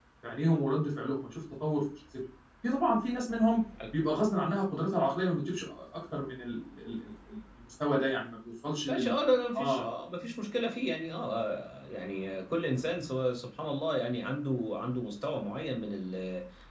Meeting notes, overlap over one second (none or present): none